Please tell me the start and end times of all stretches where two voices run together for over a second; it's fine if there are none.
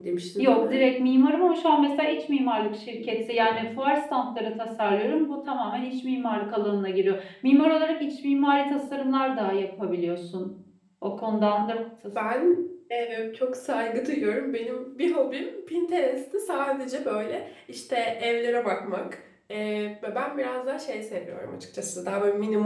none

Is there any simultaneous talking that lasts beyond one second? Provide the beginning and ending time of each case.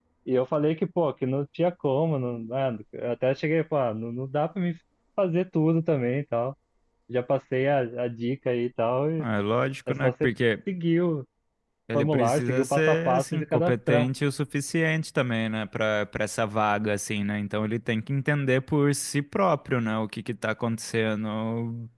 11.9-14.1

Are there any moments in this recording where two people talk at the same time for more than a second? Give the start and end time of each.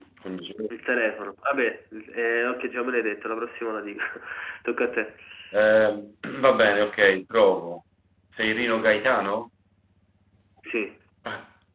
none

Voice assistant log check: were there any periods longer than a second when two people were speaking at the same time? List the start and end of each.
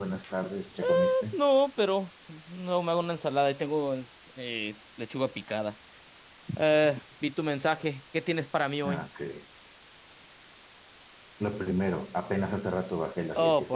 none

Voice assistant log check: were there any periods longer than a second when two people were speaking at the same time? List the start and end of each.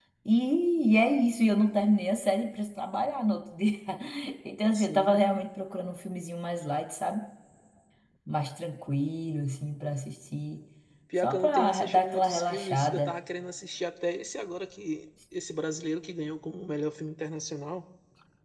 11.2-13.1

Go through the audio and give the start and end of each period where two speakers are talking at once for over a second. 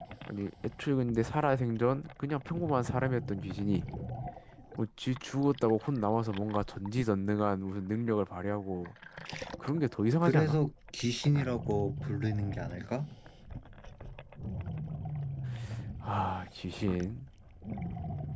none

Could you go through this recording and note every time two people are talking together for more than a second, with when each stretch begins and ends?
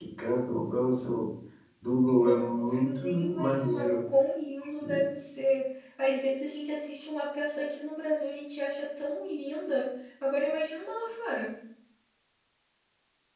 2.2-4.0

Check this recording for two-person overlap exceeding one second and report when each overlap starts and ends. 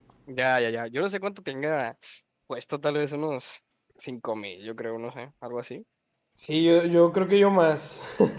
none

